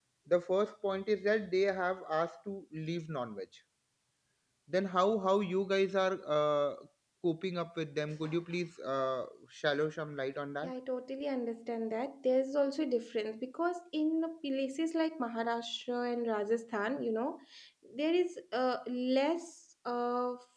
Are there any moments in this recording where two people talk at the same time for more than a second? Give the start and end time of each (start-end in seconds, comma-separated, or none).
none